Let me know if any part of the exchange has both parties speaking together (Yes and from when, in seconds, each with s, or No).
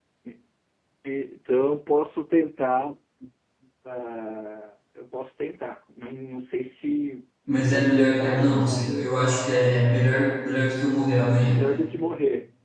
Yes, from 7.7 s